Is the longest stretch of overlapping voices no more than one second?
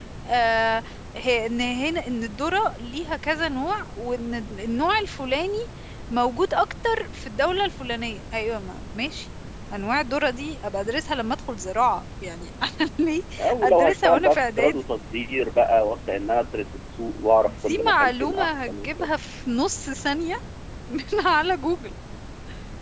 No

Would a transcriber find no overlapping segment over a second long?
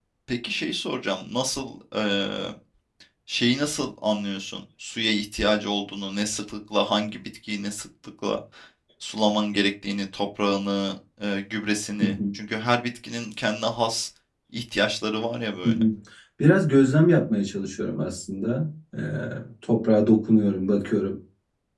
Yes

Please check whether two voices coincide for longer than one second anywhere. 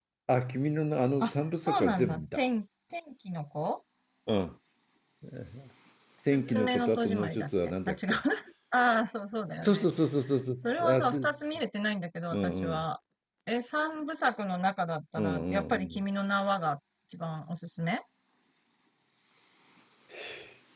Yes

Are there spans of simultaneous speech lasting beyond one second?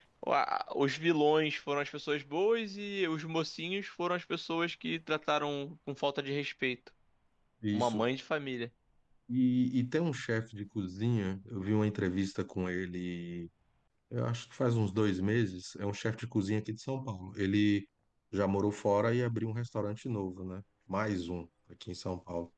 No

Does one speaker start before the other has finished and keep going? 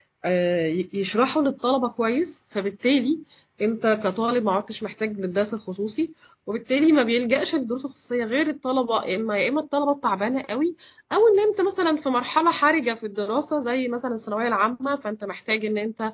No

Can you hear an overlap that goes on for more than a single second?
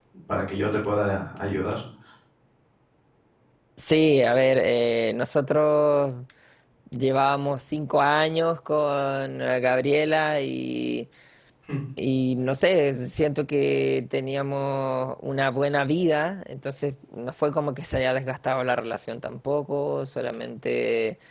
No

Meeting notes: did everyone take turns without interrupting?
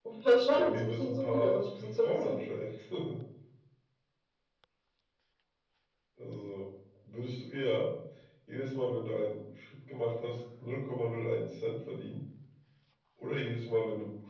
No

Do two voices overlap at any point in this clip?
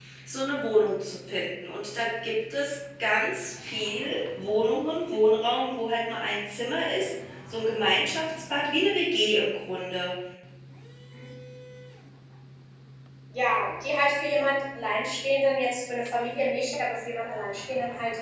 No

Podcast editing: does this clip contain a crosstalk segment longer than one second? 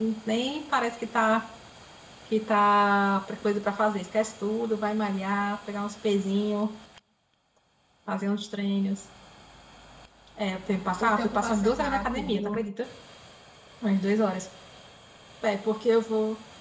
Yes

